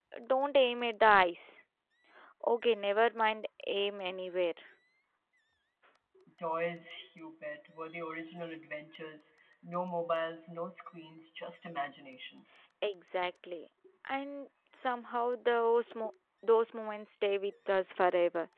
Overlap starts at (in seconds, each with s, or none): none